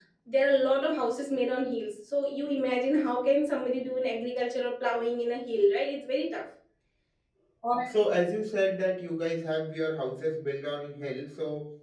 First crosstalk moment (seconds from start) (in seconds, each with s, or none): none